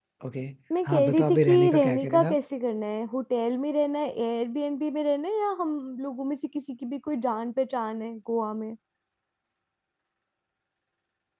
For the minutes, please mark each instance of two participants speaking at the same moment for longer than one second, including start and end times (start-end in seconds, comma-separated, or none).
0.8-2.4